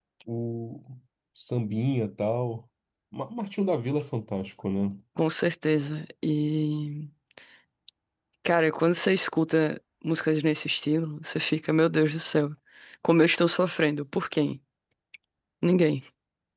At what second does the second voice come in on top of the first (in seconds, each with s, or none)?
none